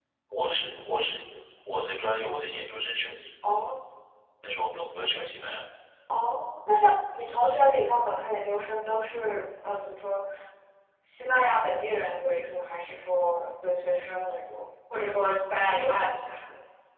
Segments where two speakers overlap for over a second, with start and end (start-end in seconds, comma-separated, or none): none